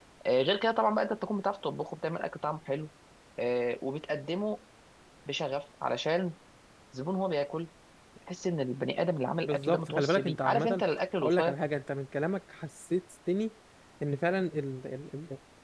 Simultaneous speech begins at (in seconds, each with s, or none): 9.4 s